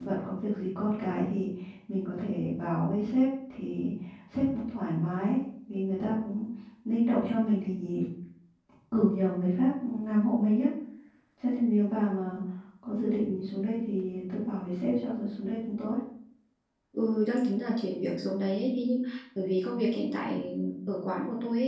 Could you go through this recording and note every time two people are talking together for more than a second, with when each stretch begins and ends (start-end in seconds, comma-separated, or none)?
none